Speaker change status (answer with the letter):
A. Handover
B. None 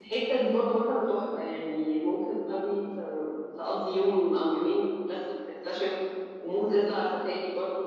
B